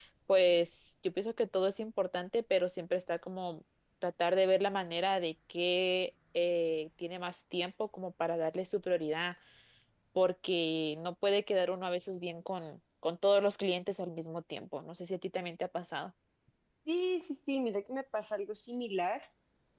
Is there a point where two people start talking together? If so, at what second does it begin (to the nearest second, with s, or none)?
none